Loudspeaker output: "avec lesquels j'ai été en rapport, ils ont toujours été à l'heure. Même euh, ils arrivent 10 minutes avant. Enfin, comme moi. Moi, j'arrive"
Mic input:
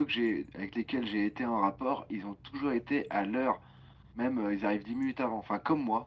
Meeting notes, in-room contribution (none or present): none